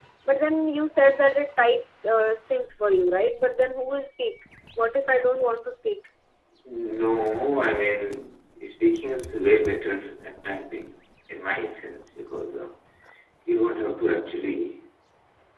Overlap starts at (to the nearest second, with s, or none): none